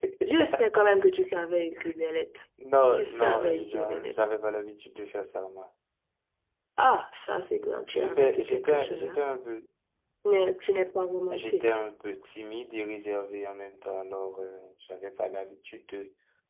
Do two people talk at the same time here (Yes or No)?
Yes